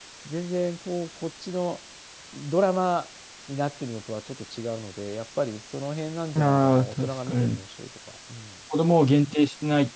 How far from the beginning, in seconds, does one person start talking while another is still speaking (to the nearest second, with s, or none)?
6 s